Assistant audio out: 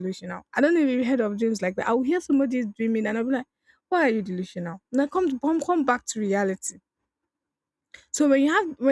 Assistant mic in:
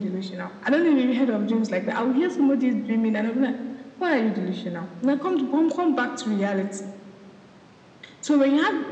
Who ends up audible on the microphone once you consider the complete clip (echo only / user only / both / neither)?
echo only